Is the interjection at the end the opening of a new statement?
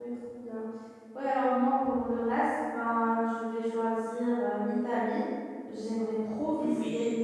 No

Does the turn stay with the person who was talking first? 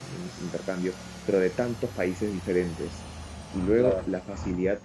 Yes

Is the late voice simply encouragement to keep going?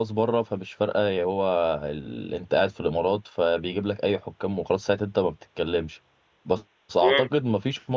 Yes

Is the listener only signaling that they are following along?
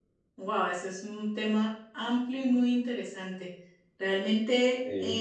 Yes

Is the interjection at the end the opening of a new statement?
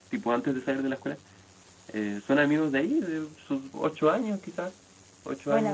Yes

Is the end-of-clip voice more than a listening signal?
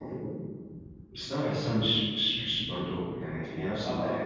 Yes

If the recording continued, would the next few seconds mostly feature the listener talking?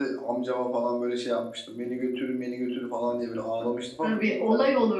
Yes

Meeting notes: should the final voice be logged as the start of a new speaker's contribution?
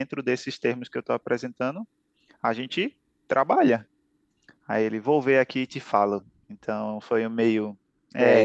Yes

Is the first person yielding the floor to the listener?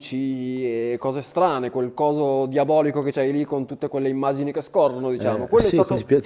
Yes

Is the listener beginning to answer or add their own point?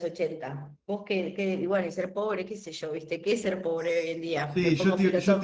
Yes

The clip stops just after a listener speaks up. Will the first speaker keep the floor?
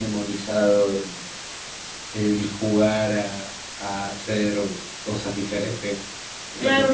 No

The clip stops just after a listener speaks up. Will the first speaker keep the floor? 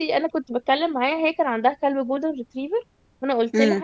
Yes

